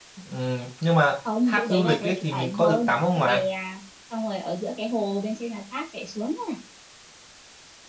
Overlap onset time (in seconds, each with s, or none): 1.4 s